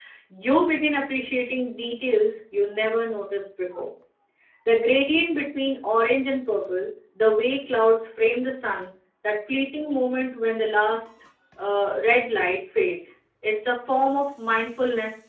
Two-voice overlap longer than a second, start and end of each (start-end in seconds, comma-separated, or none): none